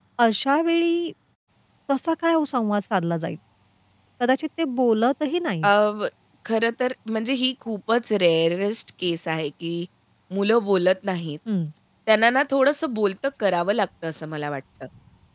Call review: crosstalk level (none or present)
none